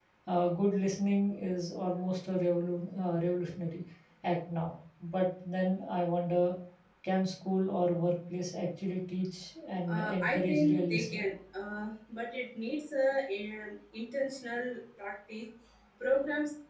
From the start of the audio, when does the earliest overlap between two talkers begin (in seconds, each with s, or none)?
9.9 s